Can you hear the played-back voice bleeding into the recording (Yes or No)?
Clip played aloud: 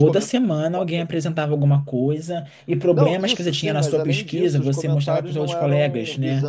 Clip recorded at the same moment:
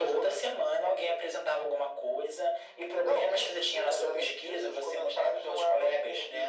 Yes